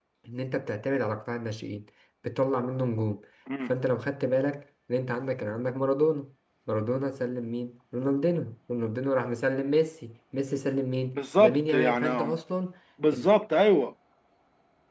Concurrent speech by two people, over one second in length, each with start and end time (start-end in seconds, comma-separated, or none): 11.1-12.4